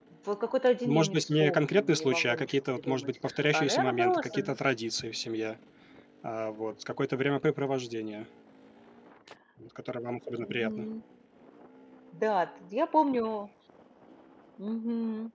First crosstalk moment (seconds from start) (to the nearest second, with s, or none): 1 s